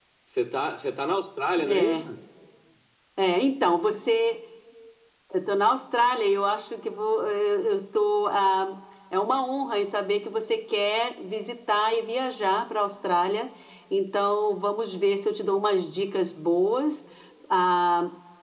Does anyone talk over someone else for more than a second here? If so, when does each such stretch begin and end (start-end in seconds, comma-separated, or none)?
none